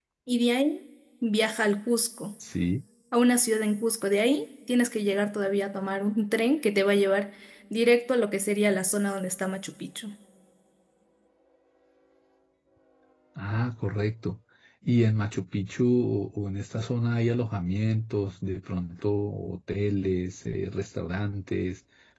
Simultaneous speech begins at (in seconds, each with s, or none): none